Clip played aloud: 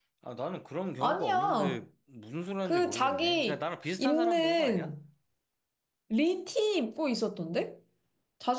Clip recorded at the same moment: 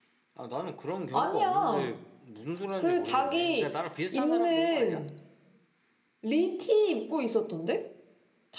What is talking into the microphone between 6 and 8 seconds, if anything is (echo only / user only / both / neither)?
echo only